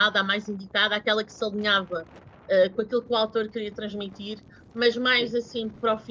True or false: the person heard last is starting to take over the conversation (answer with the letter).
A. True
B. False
B